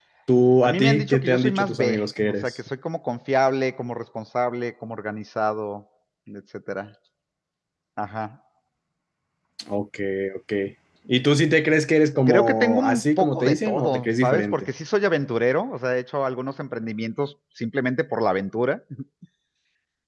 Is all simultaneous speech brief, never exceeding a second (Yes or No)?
No